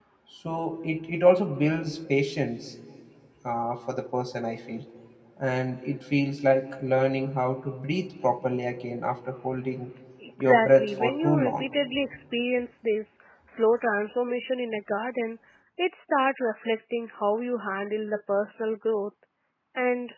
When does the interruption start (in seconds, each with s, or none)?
10.4 s